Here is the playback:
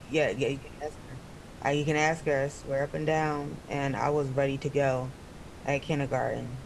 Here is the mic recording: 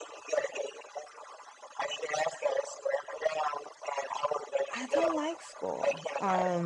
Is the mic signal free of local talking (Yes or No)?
No